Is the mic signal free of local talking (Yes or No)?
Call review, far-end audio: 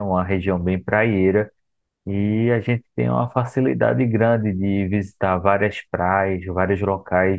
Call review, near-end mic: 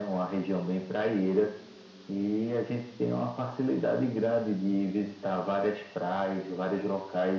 Yes